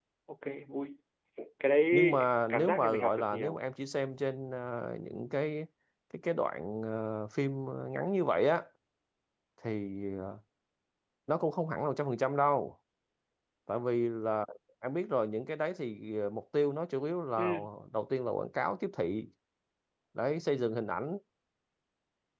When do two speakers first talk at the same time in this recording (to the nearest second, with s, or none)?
2 s